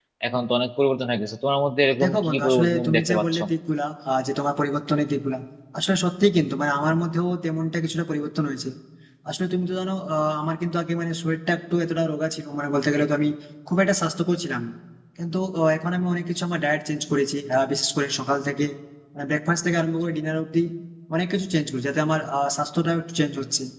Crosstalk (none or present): present